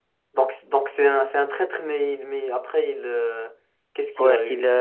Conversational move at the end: taking over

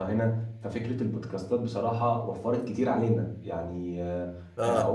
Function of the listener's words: listening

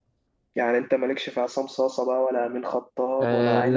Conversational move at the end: taking over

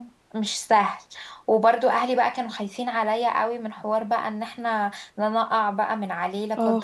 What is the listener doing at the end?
taking over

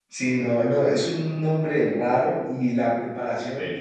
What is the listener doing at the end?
listening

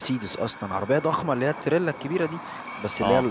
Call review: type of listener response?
listening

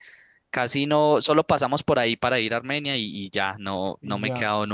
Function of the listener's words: listening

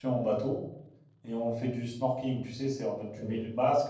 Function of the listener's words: listening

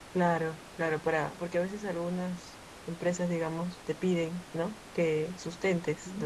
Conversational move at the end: listening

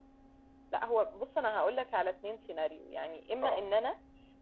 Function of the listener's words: listening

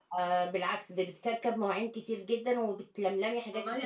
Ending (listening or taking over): taking over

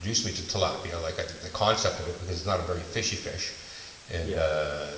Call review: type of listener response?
listening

